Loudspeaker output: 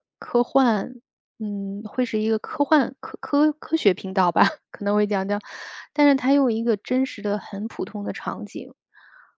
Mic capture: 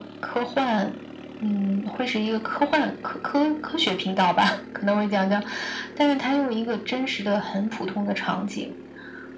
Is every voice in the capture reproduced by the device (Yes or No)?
Yes